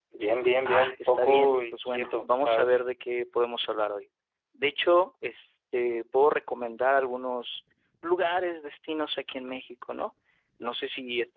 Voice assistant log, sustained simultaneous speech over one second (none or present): present